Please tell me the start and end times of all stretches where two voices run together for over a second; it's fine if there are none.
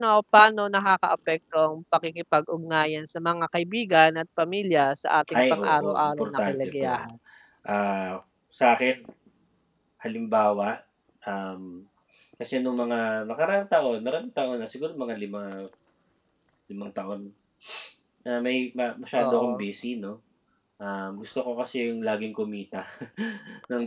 5.4-6.9

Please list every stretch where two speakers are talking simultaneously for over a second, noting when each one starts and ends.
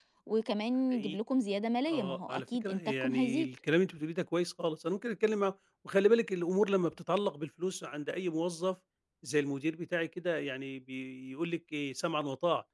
1.9-3.5

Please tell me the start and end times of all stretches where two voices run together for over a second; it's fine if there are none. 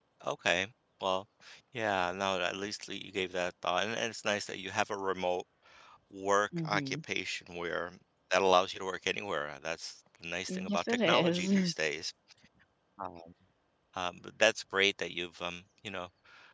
10.5-11.7

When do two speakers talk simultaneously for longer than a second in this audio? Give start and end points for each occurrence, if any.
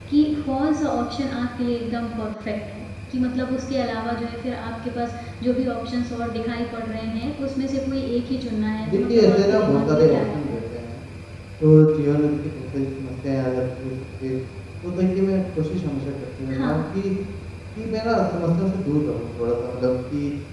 8.9-10.6

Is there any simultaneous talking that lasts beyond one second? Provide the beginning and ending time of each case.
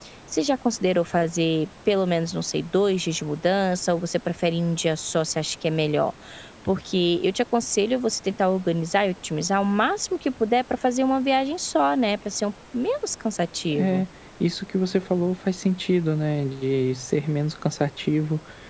none

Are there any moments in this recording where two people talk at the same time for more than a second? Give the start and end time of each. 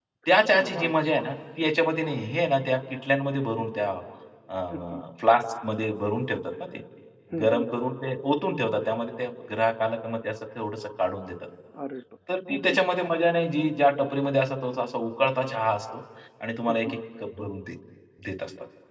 none

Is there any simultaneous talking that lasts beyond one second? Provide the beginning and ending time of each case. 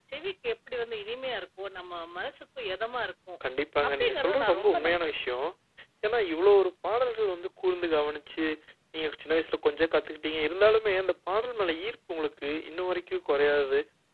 3.9-5.1

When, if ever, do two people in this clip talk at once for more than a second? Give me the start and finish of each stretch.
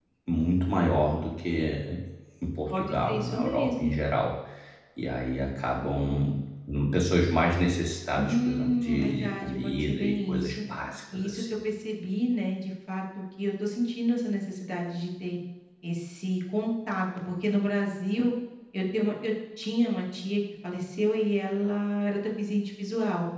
2.7-3.9, 8.2-10.6

